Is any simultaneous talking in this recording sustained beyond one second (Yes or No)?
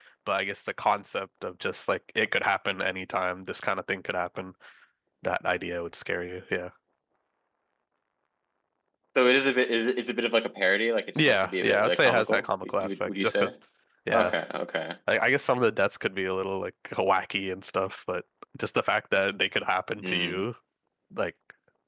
Yes